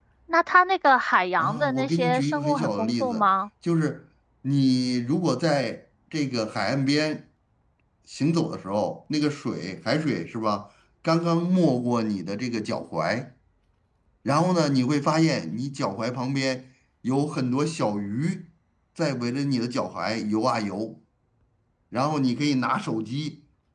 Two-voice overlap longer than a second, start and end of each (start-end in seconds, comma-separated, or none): 1.4-3.3